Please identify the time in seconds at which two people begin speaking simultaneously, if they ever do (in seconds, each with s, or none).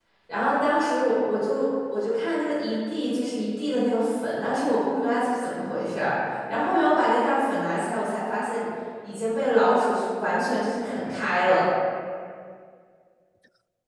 none